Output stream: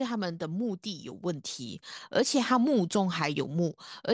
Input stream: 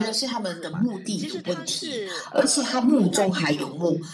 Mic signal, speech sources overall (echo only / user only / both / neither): both